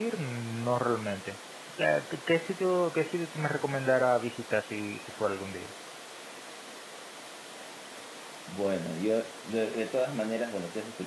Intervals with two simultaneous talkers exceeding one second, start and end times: none

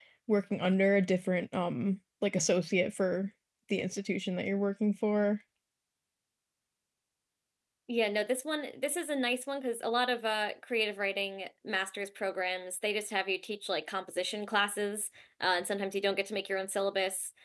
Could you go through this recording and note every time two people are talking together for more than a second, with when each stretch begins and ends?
none

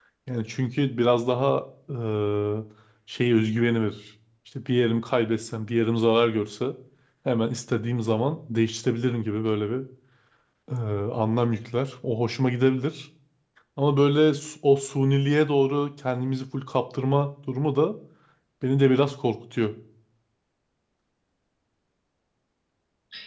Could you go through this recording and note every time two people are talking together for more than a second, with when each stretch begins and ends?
none

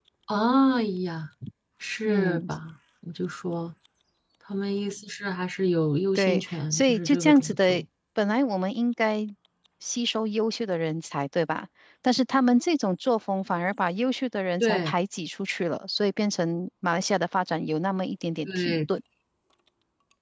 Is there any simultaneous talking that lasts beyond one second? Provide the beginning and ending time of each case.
6.2-7.8

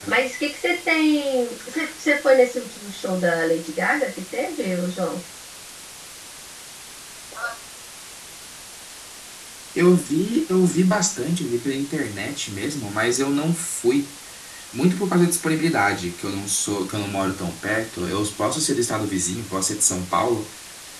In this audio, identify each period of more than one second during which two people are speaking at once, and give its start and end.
none

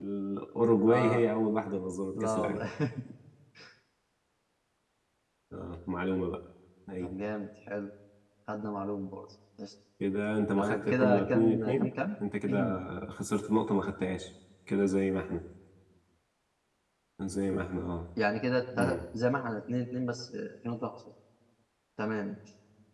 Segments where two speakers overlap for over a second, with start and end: 10.6-11.9

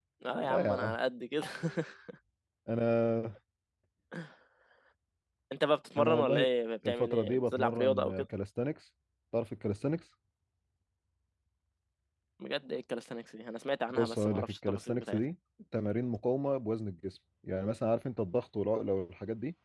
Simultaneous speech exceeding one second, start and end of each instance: 6.9-8.2, 13.9-15.2

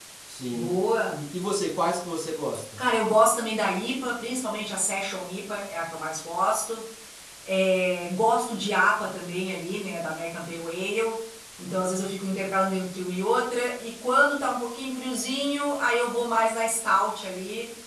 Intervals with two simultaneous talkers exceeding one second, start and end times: none

